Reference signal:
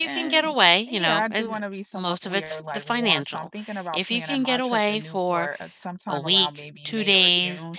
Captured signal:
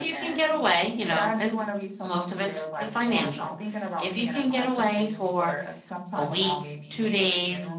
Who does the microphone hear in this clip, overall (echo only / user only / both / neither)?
echo only